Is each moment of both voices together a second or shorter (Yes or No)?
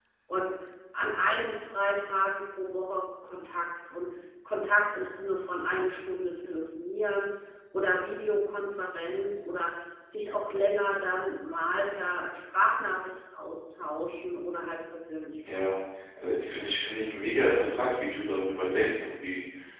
Yes